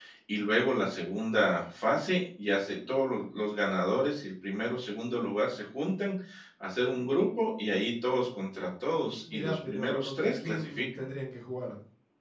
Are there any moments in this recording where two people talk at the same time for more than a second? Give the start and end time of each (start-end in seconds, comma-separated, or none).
9.3-10.9